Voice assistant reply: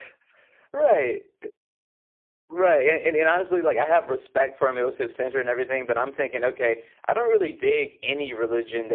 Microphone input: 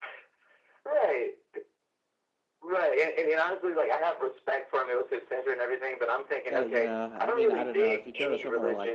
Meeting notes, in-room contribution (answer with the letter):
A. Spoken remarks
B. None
A